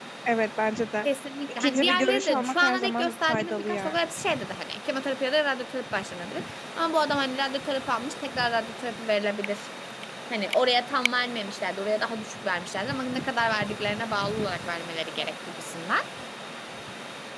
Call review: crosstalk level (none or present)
present